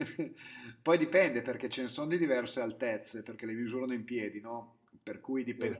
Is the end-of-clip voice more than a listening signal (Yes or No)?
No